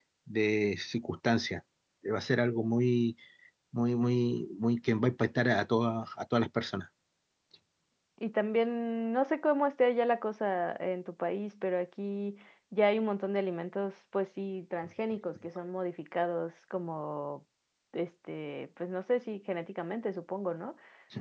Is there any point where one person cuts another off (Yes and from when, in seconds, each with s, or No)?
No